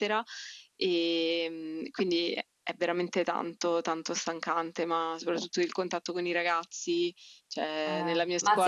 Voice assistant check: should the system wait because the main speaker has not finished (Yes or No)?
No